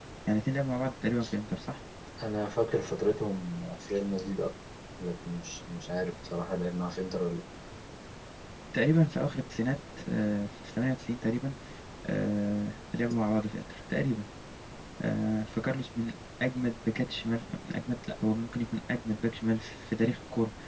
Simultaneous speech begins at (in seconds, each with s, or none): none